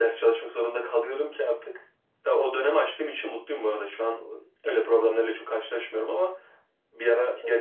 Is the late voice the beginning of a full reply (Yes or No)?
No